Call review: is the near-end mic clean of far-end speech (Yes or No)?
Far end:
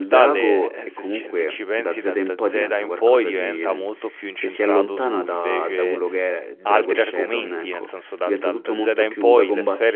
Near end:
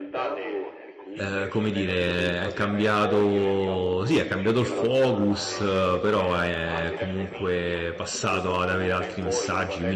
No